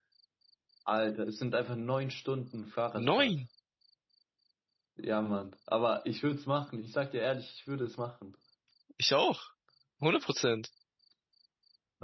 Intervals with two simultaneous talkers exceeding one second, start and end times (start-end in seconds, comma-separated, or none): none